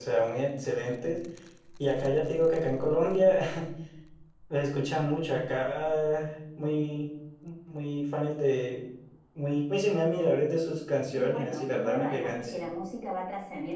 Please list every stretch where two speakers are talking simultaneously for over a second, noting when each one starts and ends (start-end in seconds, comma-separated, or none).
11.1-12.5